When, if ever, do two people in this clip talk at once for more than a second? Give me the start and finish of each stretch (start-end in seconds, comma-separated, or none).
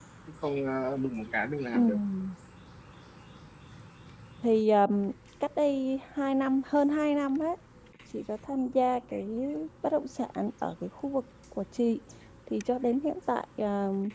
none